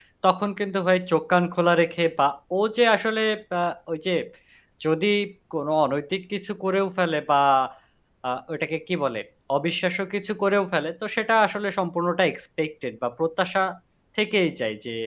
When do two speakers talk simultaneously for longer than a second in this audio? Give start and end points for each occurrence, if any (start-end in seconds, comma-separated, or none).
none